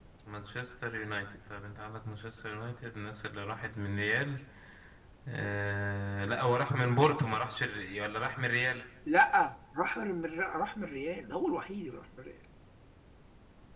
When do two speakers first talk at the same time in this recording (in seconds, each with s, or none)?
none